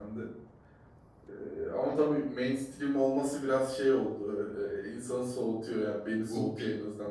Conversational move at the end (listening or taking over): taking over